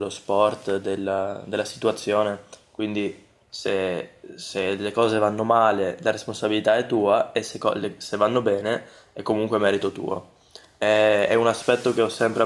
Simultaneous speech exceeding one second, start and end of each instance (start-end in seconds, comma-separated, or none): none